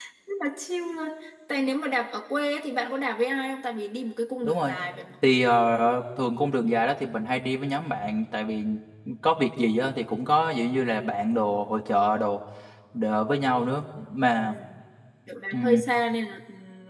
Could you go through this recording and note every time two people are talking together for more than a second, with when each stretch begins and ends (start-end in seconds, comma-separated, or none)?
none